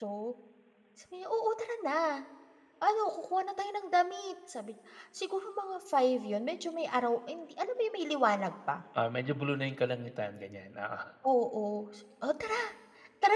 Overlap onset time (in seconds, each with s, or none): none